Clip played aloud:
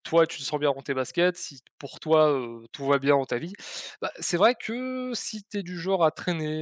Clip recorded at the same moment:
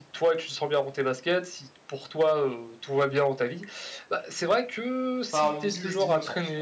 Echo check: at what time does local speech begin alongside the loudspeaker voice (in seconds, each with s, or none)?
5.3 s